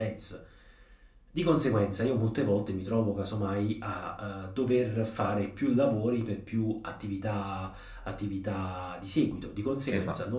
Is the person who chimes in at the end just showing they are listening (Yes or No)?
Yes